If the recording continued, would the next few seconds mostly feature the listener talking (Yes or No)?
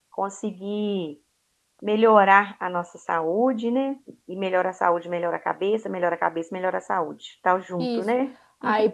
Yes